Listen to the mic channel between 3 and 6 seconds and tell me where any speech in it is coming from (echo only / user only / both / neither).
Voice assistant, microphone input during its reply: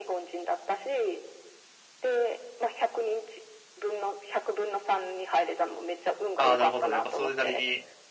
echo only